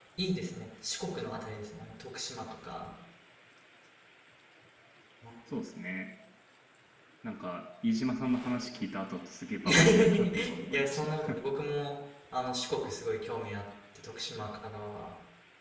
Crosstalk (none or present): present